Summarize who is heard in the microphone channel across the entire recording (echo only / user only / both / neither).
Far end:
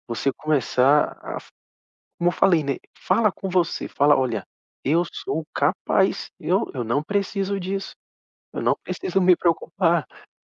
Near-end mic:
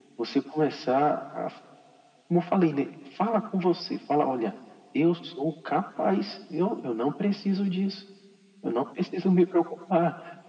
echo only